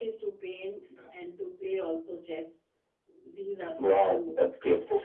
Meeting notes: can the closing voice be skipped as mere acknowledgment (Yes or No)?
No